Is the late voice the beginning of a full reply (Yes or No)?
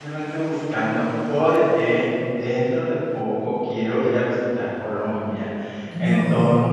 No